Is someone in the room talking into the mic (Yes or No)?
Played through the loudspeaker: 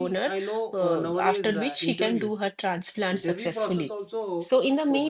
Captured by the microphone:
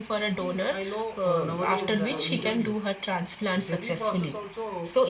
Yes